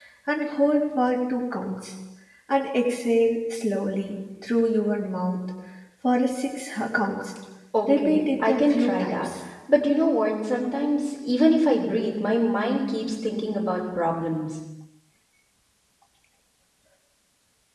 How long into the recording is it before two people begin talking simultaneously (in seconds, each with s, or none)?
7.9 s